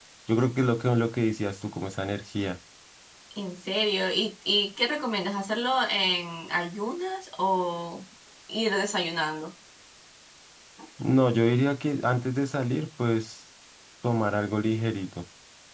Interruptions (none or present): none